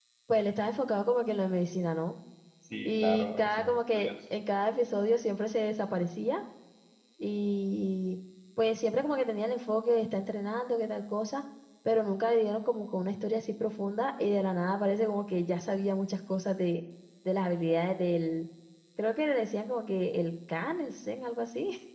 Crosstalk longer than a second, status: present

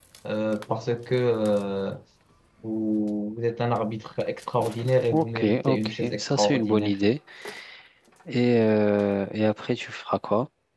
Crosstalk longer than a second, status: present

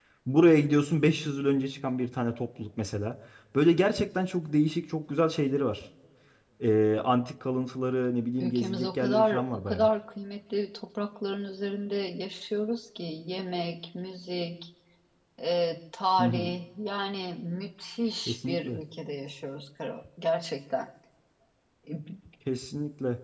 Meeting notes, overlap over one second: present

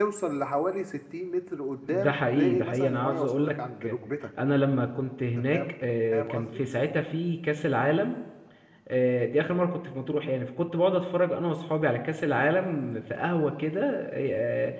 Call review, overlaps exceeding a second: present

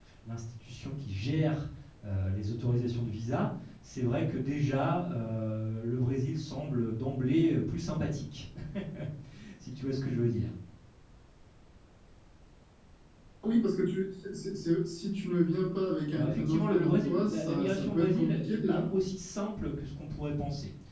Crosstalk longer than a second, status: present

